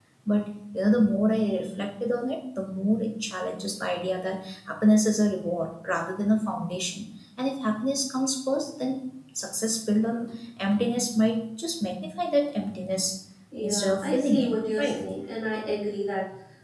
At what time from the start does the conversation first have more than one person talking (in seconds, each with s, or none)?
13.6 s